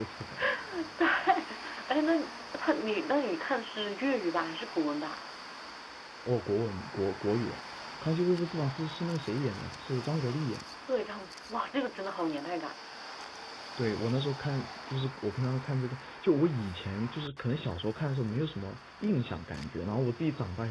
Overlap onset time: none

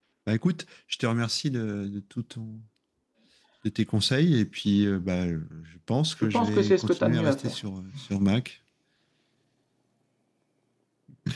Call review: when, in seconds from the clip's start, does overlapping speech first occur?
6.2 s

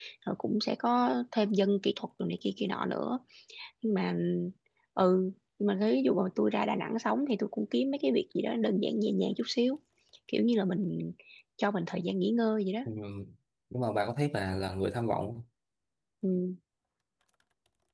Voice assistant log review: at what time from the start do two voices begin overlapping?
none

